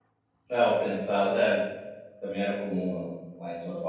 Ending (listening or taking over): taking over